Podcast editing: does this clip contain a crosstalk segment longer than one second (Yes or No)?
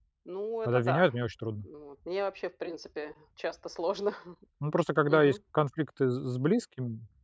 No